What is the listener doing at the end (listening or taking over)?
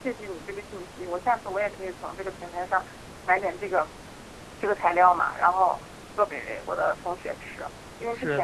listening